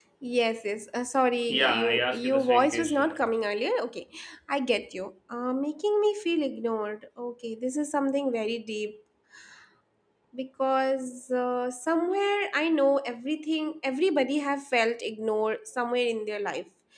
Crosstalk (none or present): present